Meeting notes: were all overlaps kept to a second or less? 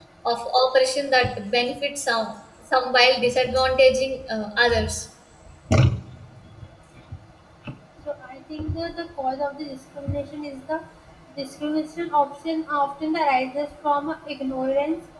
Yes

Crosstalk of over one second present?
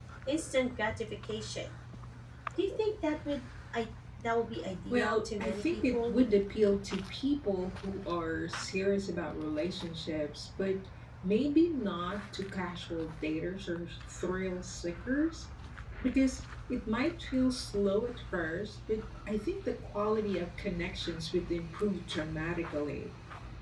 Yes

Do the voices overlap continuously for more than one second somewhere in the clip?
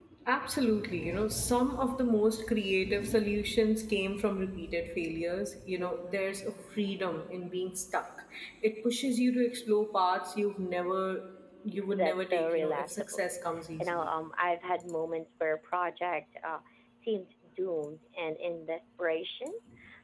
Yes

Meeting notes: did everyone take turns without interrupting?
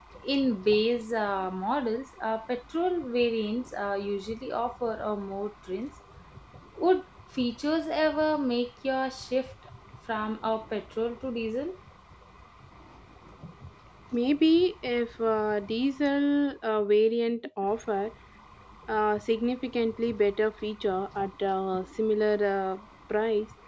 Yes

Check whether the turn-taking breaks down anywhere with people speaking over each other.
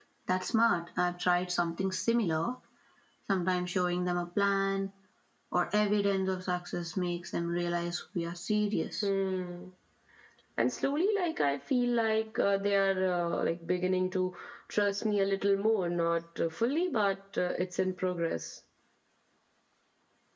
No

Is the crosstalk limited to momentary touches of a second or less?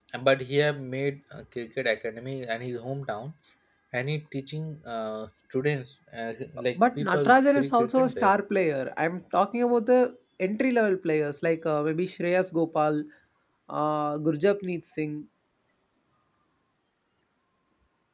No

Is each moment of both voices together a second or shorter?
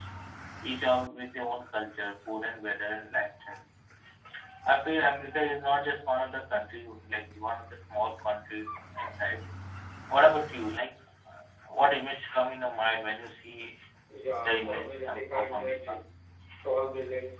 No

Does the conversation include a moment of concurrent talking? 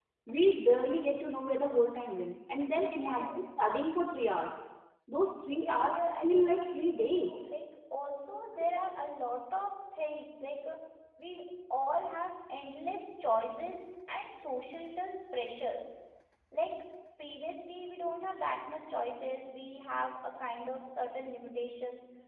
Yes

